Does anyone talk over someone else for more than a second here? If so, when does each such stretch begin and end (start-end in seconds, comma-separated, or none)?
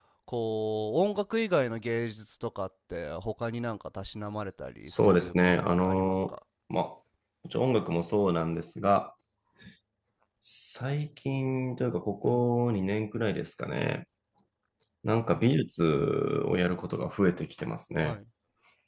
4.9-6.3